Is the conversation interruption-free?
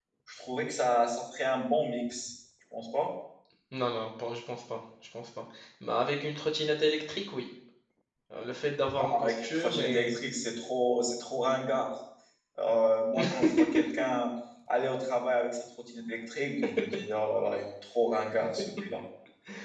No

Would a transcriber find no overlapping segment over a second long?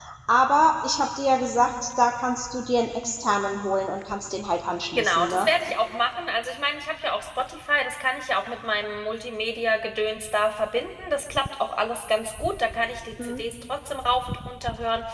Yes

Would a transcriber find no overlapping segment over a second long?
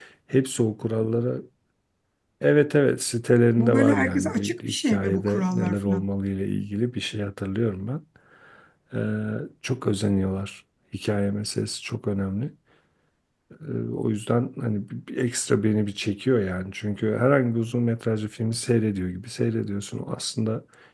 No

